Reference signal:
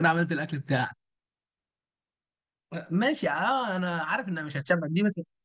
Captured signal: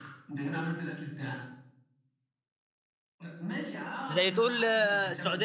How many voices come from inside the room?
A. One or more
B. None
A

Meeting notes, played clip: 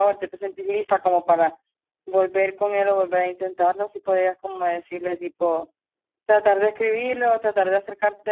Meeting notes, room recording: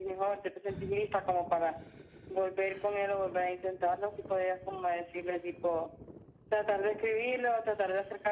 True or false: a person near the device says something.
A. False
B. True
A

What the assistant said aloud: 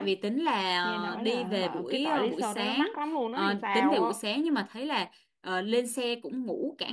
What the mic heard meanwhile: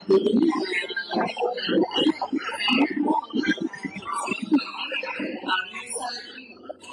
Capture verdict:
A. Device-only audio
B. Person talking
A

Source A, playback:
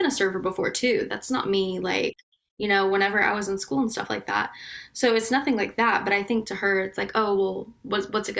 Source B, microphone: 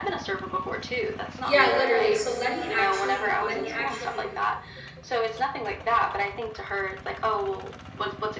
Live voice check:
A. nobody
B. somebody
B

